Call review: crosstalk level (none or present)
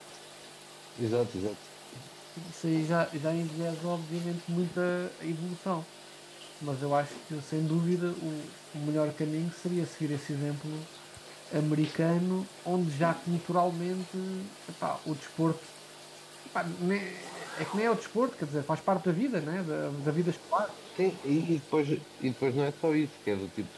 none